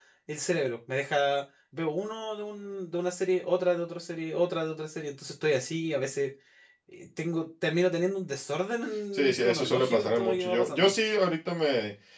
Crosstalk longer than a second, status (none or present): present